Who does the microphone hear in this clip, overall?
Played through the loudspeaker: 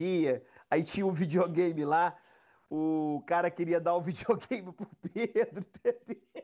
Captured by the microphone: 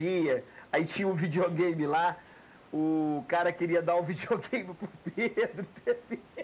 echo only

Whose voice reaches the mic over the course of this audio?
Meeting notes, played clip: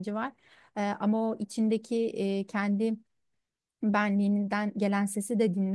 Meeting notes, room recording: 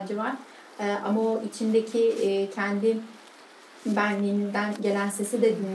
echo only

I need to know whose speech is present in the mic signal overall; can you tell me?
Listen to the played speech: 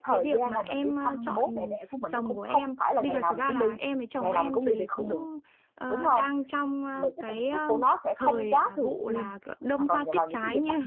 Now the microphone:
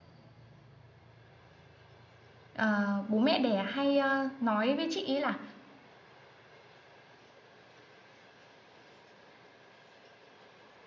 user only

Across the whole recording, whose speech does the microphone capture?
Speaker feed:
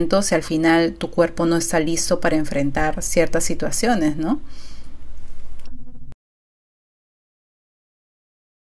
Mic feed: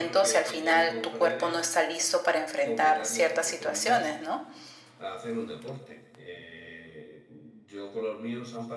both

